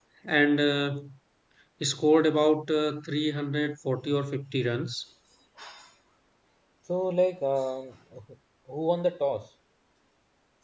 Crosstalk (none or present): none